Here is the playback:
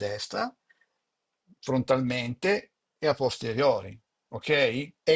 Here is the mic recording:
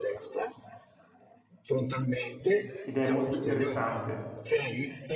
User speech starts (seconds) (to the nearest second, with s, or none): 3 s